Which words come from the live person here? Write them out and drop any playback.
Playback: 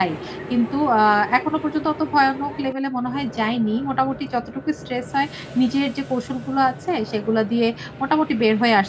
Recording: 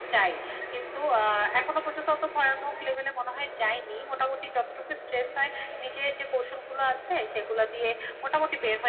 none

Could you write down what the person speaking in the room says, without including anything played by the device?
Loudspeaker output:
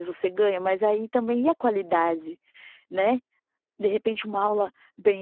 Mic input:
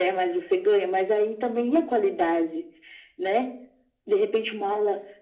none

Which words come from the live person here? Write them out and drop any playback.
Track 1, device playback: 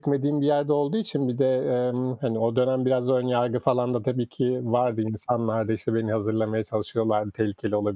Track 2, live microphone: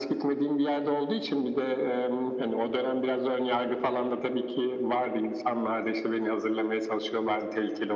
none

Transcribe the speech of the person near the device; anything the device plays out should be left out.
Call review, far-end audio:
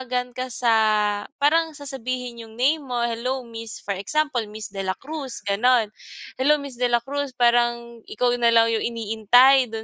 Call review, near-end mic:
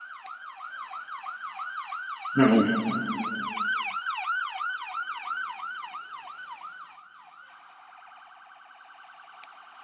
Mm.

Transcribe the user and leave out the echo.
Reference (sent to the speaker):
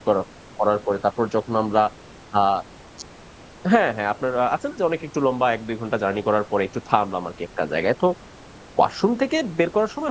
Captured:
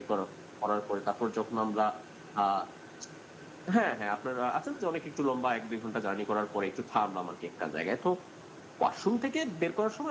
none

